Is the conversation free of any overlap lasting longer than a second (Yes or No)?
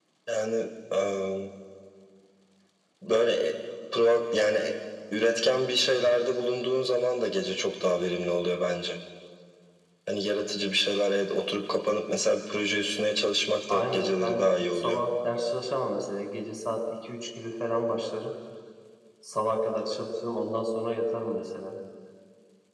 No